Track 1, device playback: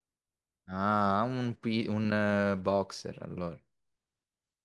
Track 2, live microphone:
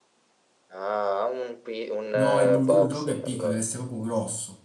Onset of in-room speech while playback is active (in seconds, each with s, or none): 2.1 s